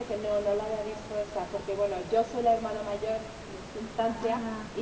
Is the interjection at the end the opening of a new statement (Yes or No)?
No